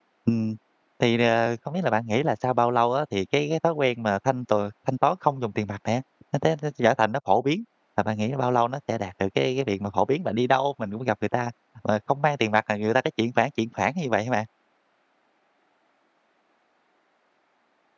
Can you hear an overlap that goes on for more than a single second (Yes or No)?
No